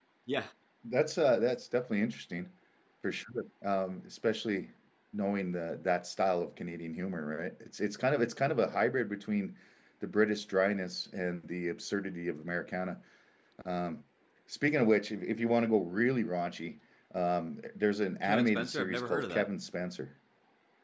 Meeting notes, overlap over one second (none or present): present